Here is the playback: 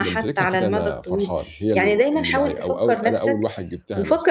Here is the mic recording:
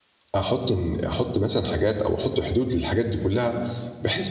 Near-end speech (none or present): present